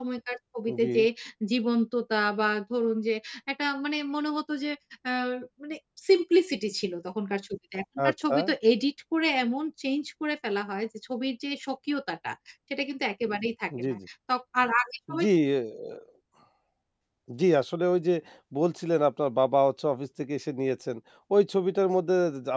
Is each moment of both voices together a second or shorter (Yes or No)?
Yes